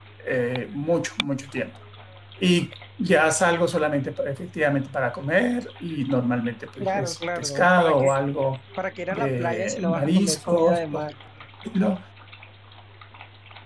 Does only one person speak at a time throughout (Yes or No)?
No